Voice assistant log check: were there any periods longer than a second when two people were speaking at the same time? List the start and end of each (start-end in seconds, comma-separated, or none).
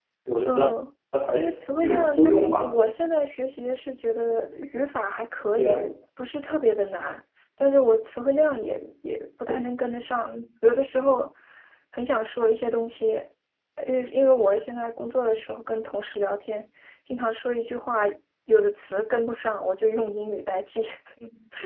1.3-2.7